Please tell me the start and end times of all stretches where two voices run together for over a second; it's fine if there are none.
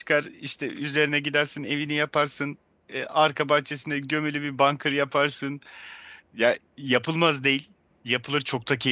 none

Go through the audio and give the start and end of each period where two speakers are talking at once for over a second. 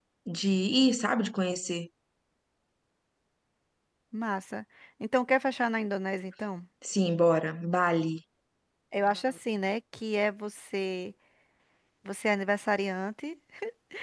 none

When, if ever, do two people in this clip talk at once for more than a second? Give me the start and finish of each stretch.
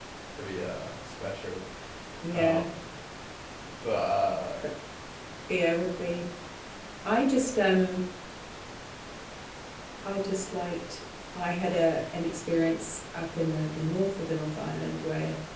none

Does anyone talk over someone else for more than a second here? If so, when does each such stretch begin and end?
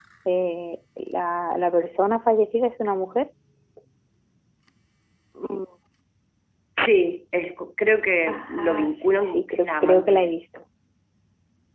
8.3-10.4

